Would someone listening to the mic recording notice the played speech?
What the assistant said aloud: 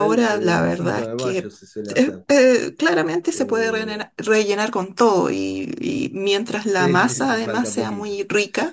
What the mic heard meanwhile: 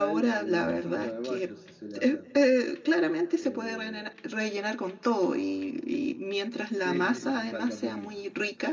Yes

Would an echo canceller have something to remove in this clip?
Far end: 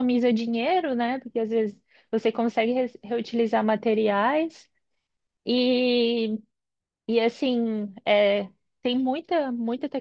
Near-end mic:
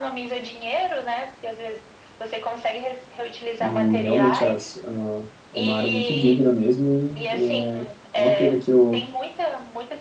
Yes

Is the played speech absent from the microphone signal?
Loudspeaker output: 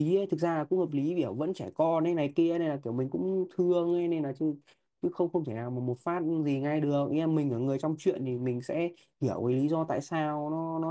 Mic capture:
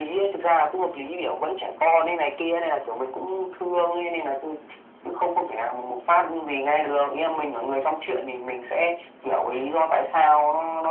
No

